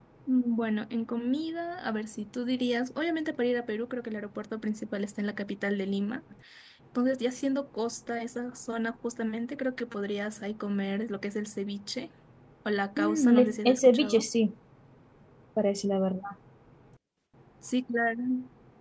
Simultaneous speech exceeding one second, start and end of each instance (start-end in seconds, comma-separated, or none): 13.0-14.3